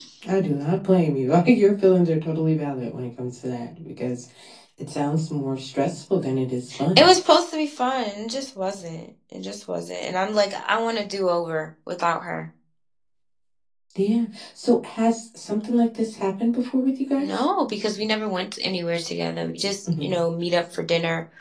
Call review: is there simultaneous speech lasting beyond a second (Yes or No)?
No